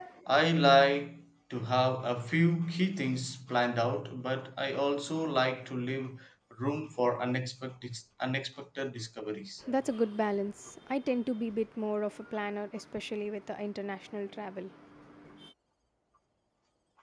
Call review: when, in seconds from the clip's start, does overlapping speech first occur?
none

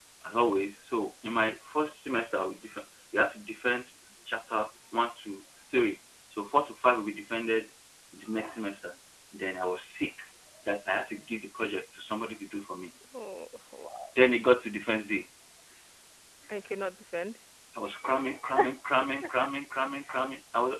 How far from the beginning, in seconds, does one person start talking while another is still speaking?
none

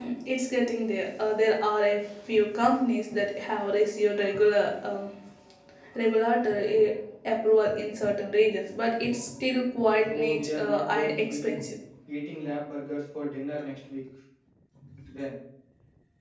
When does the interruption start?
10.1 s

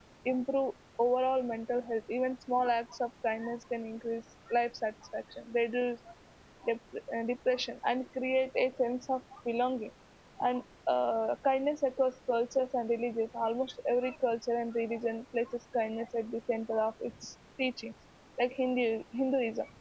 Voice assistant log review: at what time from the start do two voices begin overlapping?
none

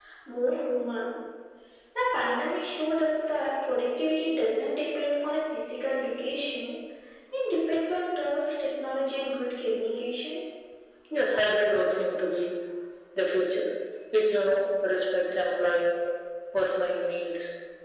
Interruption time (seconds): none

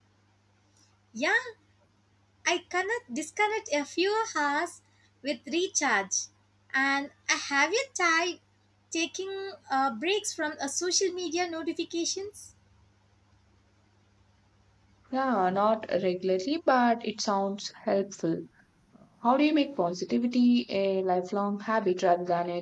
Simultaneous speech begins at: none

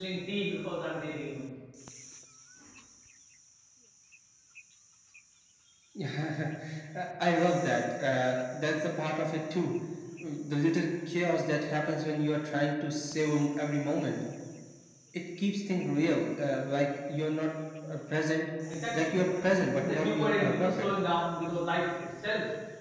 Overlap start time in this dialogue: 19.0 s

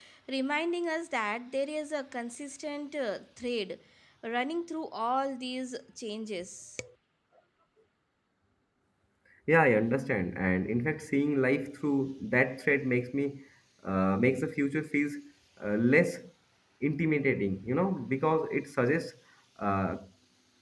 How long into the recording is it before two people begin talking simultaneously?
none

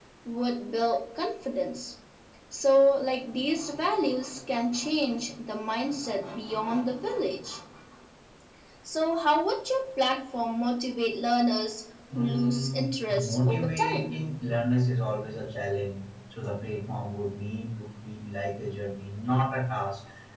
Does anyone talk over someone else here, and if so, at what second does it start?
12.1 s

